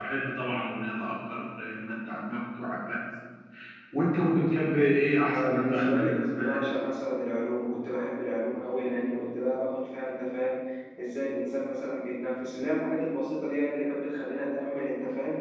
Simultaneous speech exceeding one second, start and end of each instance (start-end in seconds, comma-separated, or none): 5.3-6.6